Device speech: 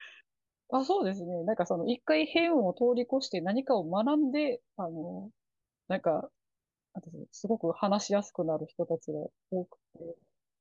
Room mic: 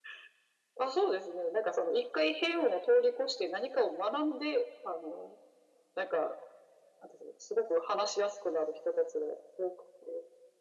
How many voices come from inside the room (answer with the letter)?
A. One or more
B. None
B